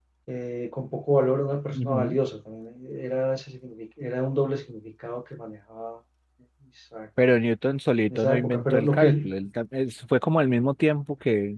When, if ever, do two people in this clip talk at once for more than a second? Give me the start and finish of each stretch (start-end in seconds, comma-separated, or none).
8.1-9.3